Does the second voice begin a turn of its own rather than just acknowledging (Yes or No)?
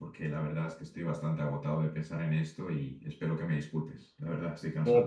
Yes